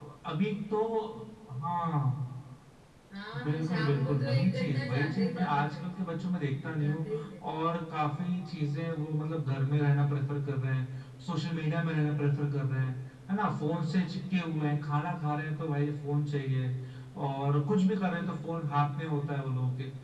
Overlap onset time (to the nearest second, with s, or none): 3 s